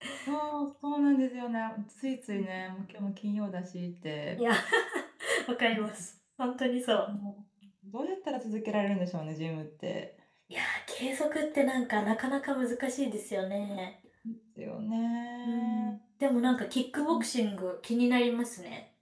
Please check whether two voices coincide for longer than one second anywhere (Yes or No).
No